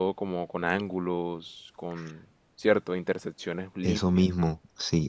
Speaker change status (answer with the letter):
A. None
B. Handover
B